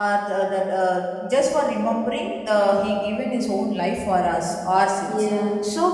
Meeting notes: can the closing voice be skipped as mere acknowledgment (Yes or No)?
Yes